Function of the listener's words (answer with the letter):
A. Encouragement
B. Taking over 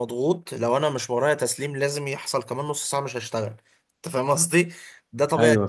A